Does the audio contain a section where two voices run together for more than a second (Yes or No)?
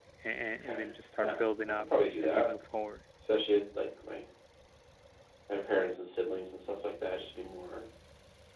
Yes